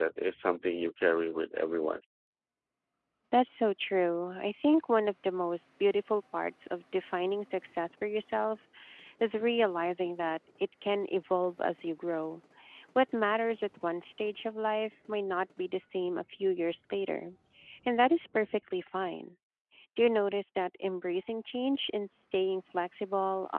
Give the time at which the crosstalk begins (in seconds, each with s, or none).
none